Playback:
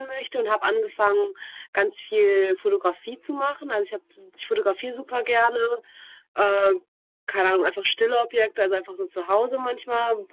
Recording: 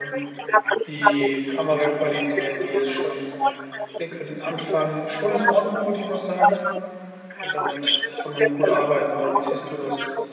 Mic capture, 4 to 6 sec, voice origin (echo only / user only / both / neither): both